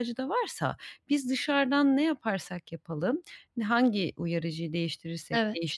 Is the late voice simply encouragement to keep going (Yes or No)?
Yes